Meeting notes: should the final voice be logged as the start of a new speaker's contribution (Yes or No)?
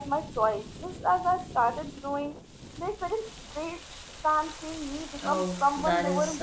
Yes